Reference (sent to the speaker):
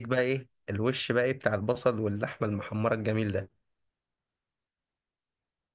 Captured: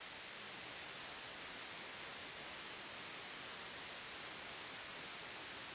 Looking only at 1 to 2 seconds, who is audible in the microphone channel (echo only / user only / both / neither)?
neither